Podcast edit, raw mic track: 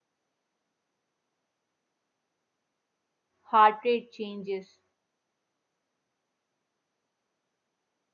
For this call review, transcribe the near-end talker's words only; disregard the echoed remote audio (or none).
Heart rate changes,